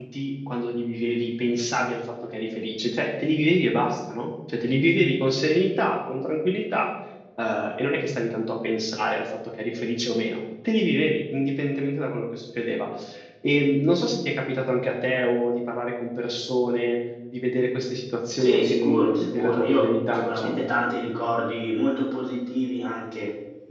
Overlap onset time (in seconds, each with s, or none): 18.4 s